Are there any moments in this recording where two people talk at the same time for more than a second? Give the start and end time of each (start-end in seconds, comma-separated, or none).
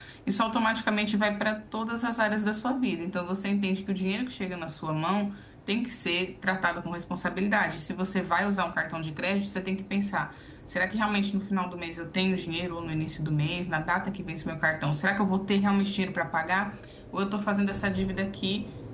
none